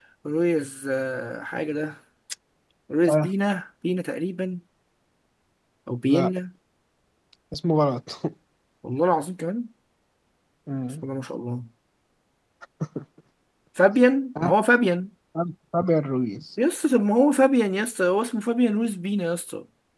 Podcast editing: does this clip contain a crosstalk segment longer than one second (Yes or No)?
No